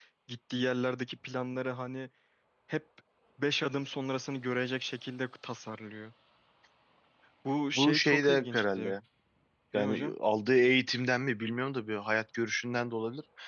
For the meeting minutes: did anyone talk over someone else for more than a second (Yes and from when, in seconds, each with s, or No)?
Yes, from 7.8 s